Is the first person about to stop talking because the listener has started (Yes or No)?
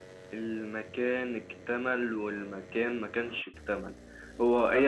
No